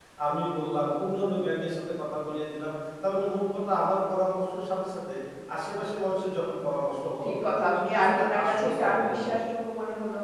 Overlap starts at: 7.7 s

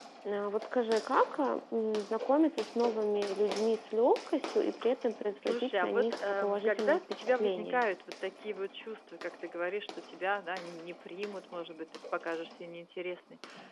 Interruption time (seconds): 5.4 s

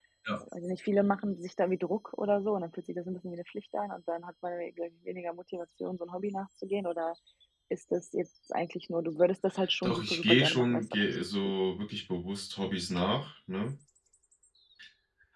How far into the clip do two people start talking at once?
9.8 s

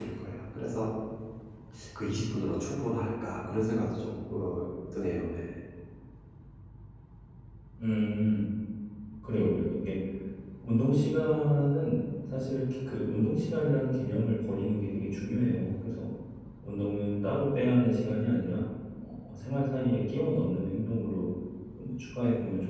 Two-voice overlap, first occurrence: none

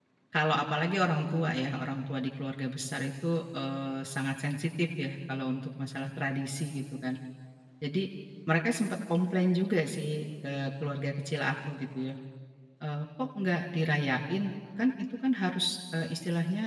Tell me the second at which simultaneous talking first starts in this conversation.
none

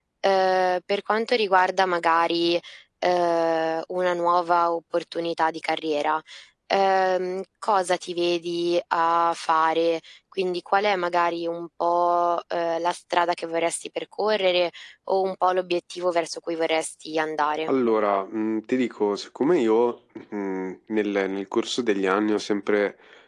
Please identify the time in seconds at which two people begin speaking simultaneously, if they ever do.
none

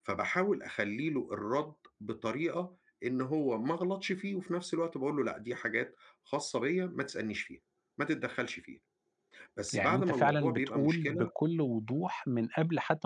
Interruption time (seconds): 9.7 s

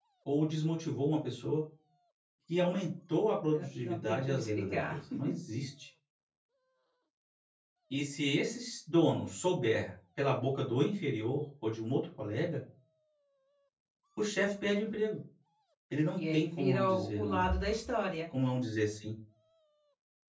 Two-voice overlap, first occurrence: 3.5 s

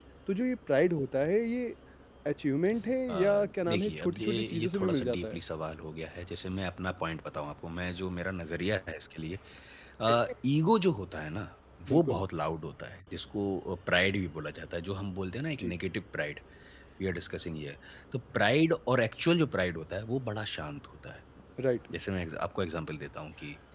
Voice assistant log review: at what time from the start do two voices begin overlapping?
3.1 s

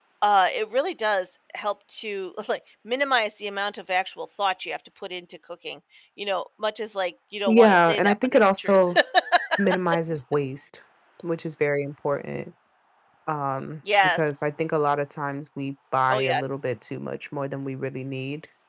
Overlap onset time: 7.5 s

